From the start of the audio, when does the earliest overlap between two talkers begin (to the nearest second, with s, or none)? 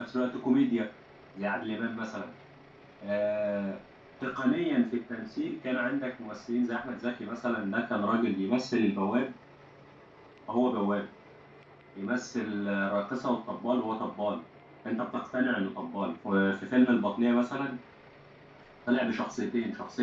none